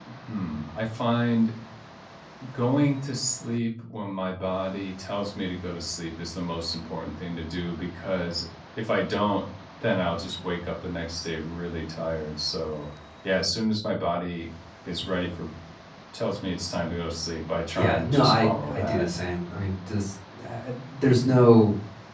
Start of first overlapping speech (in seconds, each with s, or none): 17.7 s